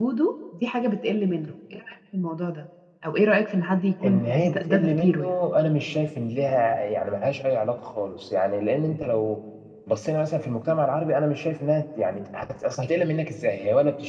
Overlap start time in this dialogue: 4 s

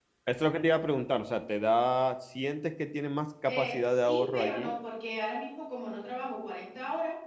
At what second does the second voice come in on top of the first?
3 s

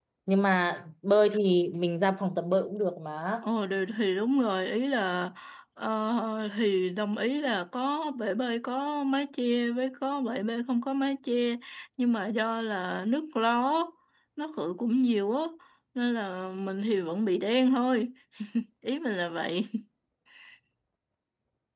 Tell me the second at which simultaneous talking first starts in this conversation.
none

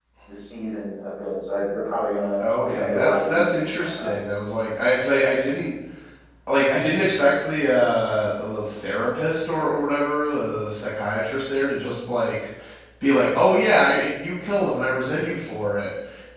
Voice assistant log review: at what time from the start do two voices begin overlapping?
2 s

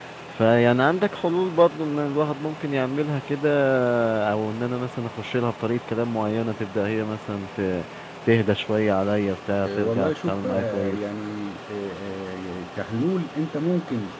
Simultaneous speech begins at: 10 s

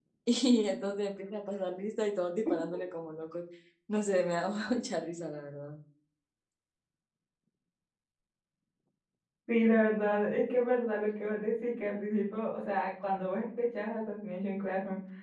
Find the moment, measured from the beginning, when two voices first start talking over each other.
none

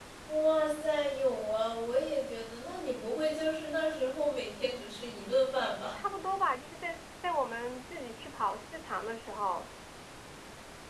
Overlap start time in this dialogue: none

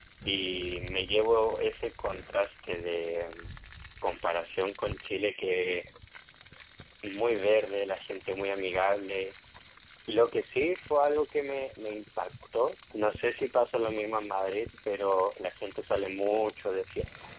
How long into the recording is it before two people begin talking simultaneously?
none

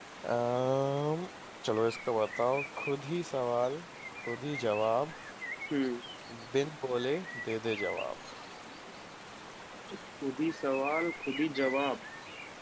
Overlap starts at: none

